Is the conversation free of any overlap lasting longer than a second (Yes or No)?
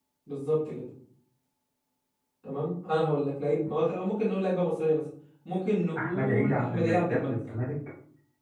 No